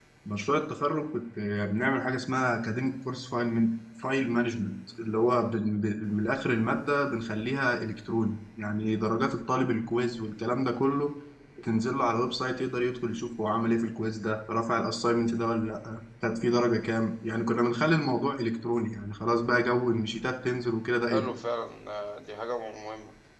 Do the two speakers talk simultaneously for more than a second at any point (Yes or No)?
No